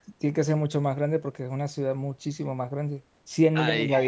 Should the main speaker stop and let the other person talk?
No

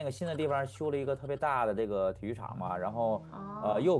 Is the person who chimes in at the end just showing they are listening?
Yes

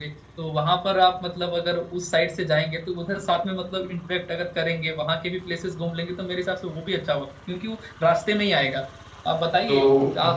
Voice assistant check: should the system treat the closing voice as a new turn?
No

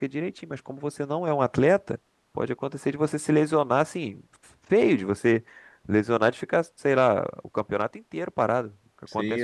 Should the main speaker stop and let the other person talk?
Yes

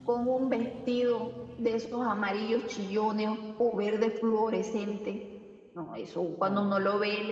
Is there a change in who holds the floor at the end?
No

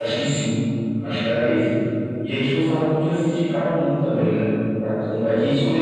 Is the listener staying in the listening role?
Yes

